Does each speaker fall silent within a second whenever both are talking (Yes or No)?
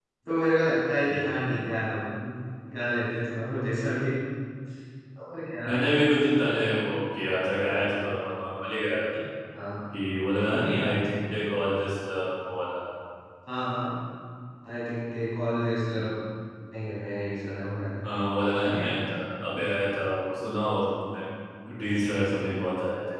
Yes